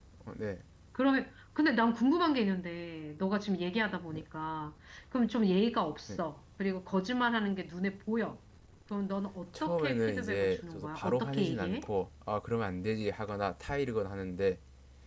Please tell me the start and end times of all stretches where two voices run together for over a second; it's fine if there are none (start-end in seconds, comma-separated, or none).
9.6-11.8